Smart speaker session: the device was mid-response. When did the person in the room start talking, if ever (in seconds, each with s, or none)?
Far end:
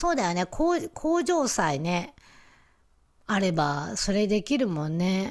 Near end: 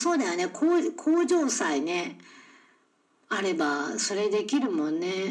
none